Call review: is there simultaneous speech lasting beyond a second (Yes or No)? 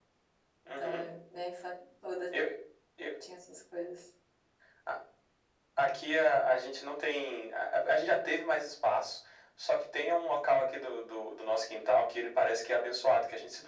No